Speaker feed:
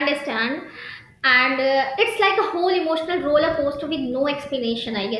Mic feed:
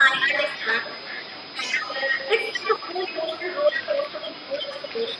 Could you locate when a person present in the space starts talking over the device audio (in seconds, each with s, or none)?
none